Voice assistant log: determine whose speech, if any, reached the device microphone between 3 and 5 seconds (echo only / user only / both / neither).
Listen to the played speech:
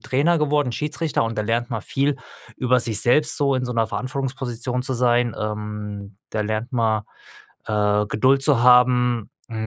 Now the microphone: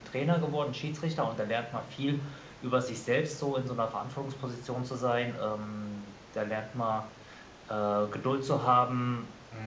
echo only